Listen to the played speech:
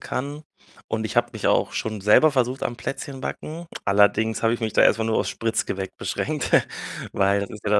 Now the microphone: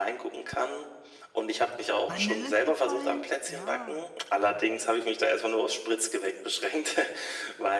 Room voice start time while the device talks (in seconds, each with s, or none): 2.0 s